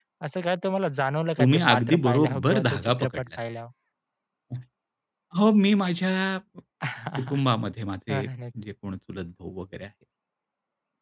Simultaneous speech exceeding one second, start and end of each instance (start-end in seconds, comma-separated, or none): 1.4-3.2